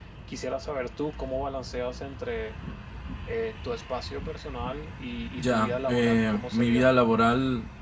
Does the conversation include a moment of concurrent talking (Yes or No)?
Yes